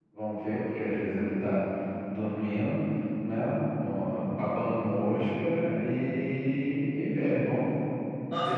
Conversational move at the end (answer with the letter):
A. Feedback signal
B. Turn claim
B